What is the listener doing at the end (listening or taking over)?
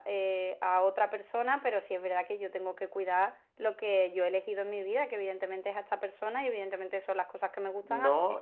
taking over